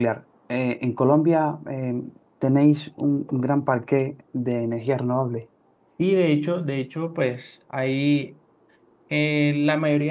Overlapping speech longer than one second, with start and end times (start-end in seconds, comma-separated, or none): none